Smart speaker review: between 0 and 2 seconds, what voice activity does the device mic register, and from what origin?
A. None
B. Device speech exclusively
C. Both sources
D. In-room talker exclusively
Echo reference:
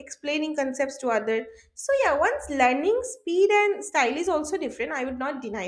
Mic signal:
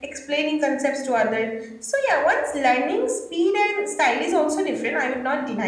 B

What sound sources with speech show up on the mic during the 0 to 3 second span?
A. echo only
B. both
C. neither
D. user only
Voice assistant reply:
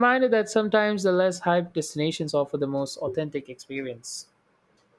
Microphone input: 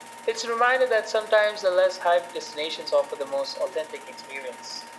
A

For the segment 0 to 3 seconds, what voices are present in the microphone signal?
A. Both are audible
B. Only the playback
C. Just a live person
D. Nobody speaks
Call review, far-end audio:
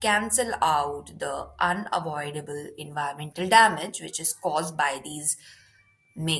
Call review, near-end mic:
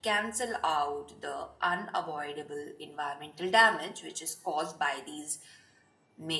B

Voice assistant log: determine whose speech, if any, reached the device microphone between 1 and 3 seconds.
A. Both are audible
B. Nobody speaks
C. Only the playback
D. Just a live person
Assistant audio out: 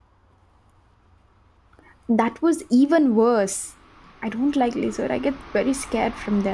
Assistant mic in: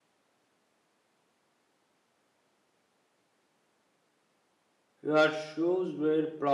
B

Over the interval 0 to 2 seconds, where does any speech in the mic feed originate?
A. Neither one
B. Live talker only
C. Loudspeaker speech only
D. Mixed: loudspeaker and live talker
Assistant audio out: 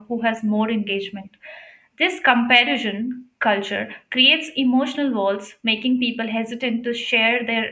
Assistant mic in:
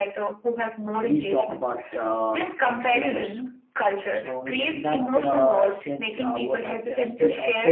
D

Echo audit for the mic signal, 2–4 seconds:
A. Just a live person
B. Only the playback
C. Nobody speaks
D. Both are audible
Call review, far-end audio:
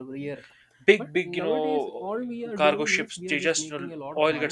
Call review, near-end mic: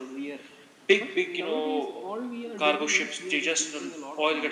B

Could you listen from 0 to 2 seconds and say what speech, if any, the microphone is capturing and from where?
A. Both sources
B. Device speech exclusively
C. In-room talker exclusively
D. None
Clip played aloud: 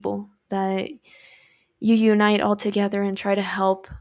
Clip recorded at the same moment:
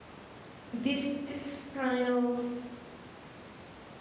C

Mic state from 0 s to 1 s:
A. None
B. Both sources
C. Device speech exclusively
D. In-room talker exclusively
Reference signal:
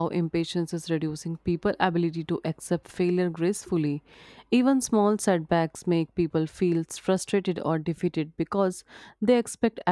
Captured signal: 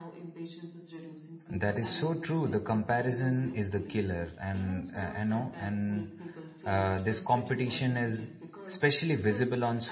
C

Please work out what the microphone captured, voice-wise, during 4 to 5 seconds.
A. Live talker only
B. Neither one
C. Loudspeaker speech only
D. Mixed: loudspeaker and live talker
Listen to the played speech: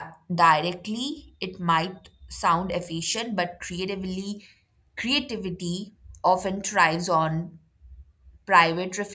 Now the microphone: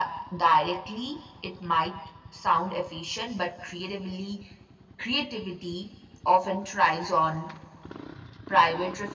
C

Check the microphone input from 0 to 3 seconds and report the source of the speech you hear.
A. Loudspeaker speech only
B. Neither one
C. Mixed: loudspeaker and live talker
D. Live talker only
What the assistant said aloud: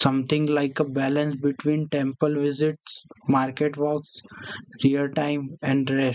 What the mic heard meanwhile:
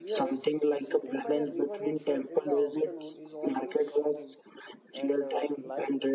C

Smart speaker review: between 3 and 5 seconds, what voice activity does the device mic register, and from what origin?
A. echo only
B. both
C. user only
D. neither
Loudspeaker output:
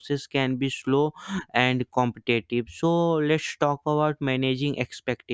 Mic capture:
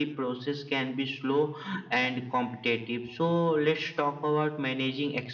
A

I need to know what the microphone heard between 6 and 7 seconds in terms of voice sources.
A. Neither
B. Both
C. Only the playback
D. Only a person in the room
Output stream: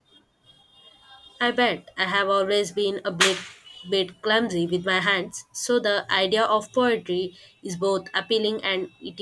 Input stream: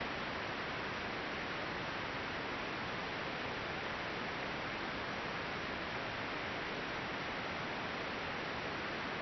A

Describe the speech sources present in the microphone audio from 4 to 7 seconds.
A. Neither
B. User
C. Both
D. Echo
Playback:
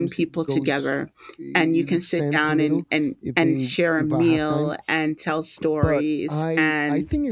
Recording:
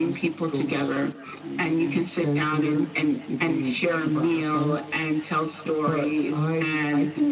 D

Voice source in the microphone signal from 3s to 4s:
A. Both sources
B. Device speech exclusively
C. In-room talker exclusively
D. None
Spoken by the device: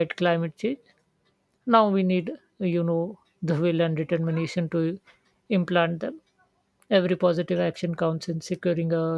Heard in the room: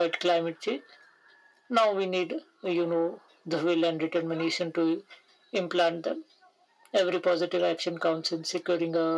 B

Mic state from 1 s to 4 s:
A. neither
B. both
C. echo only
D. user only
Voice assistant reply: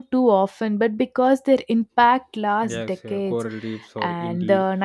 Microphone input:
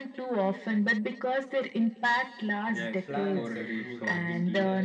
B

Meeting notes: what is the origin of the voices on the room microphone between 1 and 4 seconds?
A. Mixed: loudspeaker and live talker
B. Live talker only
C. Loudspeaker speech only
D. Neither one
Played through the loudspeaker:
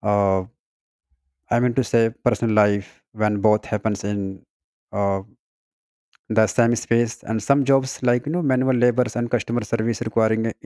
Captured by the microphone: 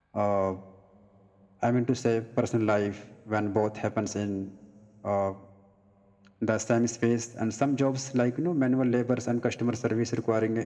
C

